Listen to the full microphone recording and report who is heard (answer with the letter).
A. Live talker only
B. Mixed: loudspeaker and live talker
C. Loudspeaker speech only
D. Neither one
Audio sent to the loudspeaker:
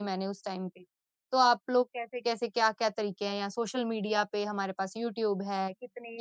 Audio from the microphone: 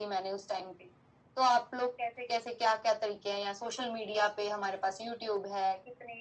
C